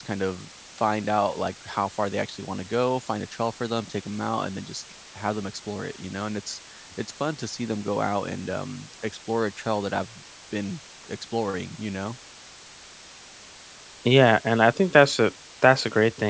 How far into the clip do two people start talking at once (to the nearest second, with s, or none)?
none